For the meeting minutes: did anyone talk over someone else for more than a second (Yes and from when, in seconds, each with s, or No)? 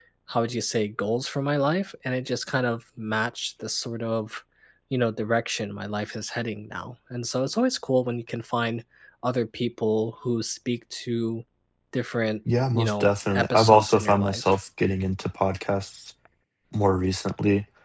Yes, from 12.7 s